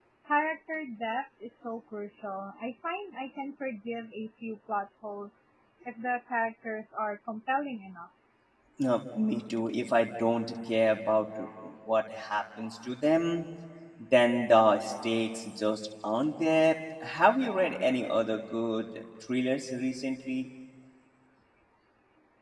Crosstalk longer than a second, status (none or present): none